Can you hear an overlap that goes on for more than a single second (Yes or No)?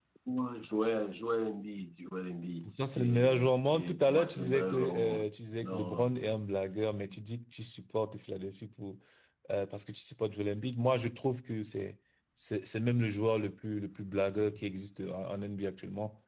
Yes